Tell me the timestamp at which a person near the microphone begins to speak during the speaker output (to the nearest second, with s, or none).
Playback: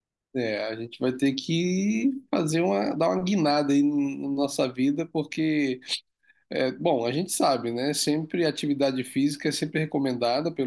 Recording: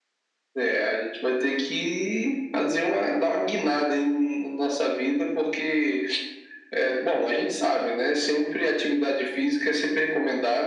none